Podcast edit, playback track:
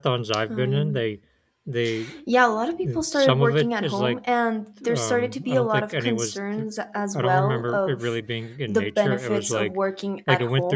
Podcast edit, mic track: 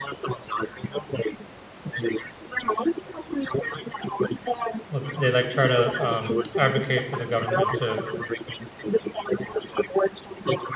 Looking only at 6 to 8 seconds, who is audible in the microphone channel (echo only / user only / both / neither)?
both